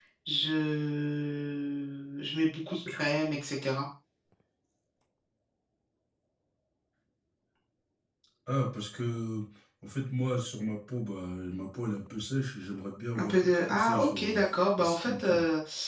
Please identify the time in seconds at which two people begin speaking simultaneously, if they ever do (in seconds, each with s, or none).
13.2 s